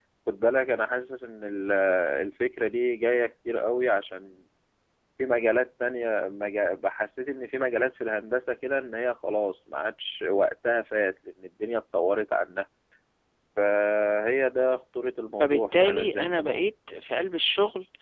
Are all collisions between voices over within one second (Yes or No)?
No